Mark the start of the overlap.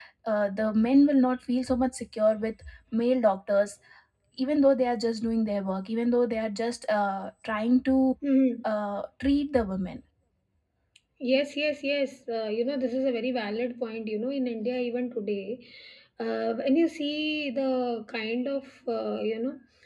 none

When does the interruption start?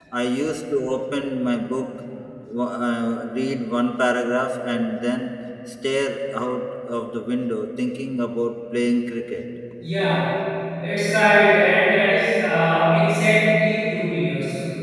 none

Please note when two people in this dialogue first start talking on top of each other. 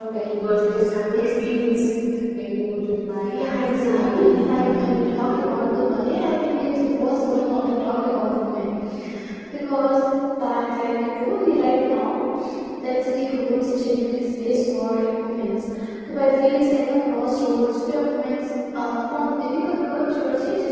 3.2 s

